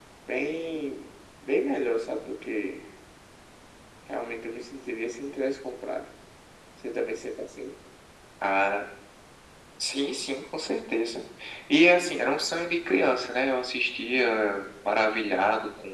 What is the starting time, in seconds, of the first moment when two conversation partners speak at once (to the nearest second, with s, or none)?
none